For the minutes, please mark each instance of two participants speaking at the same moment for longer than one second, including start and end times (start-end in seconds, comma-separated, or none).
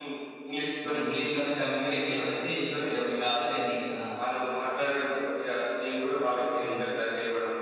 1.8-3.5